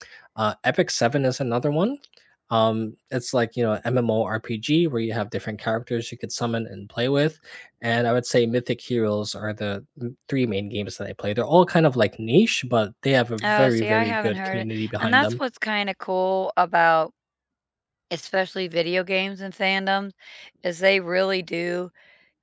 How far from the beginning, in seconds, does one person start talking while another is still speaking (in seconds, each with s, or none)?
13.4 s